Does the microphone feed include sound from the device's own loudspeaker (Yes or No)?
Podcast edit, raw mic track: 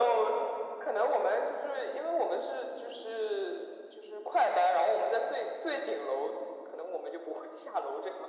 Yes